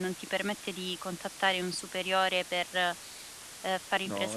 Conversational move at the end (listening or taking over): taking over